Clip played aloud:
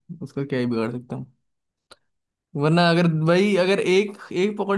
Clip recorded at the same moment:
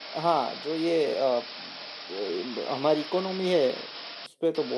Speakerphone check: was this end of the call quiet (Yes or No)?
No